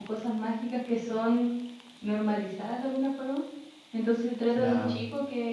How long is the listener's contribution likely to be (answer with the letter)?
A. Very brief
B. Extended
A